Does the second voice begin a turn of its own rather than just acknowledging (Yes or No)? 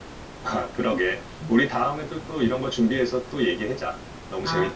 Yes